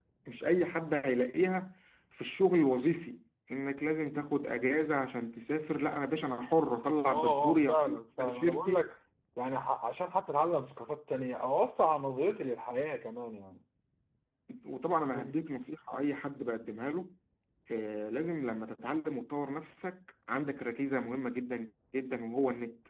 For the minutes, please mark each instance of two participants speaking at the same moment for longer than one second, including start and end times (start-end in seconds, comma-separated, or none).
7.1-8.8